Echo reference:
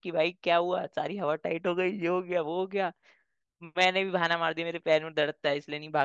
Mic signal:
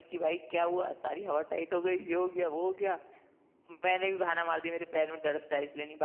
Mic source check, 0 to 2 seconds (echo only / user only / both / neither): echo only